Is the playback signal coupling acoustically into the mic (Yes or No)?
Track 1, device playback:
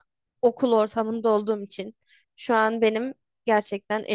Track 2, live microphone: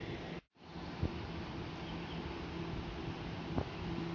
No